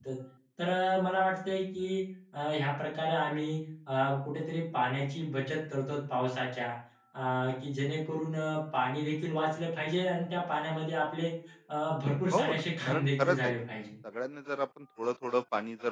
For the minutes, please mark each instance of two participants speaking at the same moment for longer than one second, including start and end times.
12.3-13.5

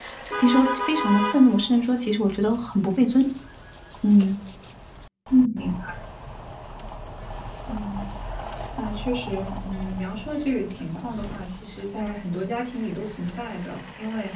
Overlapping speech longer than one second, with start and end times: none

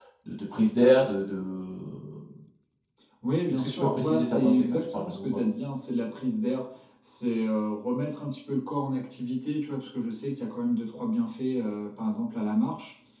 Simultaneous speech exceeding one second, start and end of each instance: 3.5-5.4

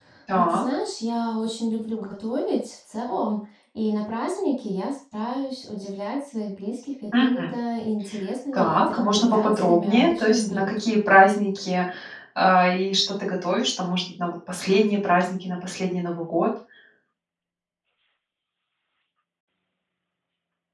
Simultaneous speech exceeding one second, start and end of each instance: 8.5-10.7

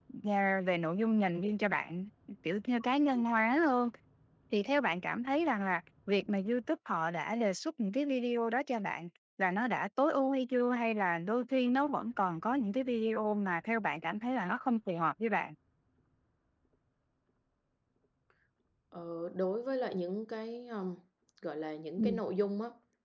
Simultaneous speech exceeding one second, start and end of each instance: none

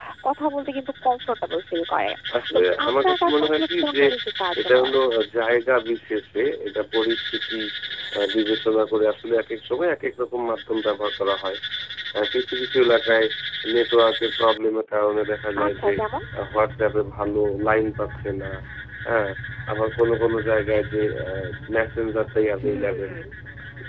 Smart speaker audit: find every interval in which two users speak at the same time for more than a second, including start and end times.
2.5-4.0

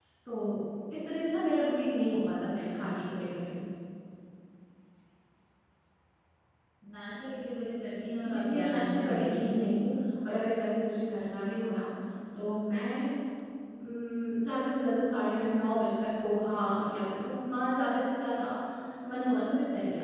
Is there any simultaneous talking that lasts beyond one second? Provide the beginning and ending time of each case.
8.3-9.6

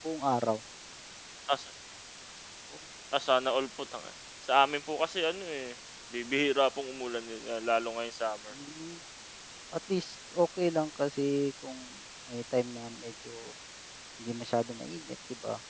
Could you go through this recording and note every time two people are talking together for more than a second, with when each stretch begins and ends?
none

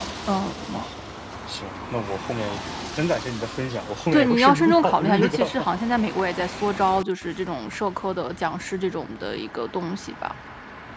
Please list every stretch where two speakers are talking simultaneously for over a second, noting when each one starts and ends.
4.1-5.7

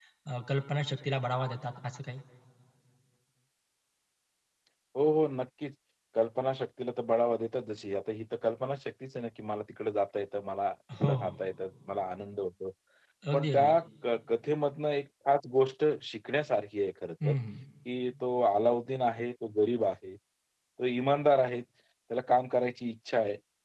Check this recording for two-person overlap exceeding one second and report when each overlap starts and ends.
none

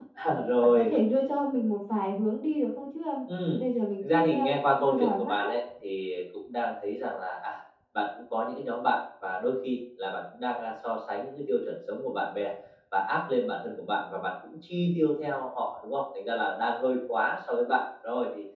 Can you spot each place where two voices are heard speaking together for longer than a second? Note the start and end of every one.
4.1-5.5

